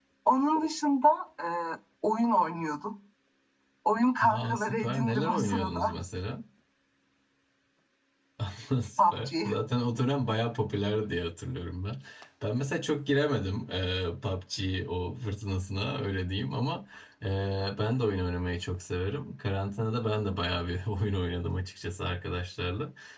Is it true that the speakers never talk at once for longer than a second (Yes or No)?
No